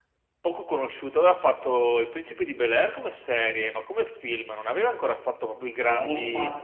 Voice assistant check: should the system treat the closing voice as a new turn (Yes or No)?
Yes